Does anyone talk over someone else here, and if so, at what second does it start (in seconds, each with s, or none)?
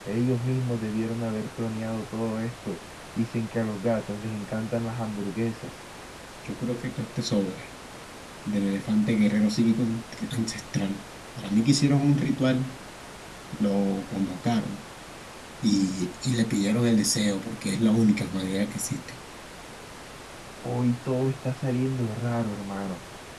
none